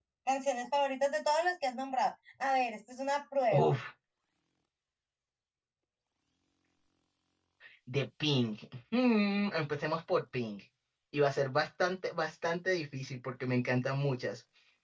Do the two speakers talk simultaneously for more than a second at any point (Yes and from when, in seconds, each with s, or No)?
No